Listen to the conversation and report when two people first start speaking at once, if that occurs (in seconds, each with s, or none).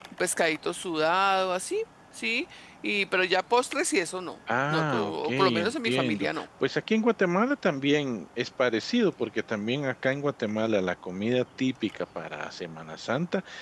4.5 s